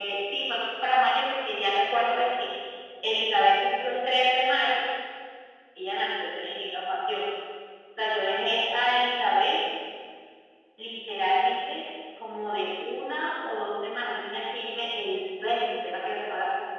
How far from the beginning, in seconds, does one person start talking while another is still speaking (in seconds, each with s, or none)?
none